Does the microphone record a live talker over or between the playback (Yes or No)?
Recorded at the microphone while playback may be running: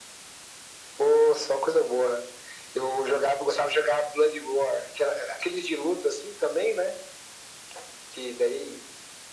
No